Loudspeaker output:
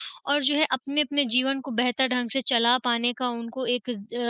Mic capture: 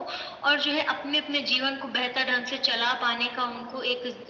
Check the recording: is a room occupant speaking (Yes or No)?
No